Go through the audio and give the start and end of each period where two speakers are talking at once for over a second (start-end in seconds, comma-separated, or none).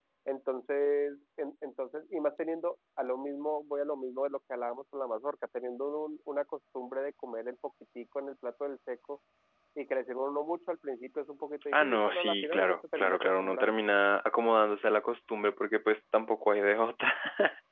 11.7-13.7